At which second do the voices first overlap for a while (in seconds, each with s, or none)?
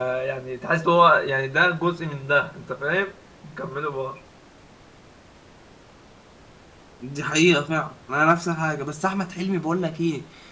none